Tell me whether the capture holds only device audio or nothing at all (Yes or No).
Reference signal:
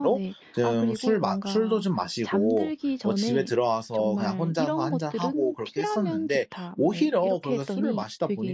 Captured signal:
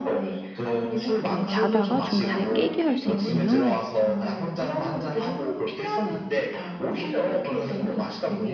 No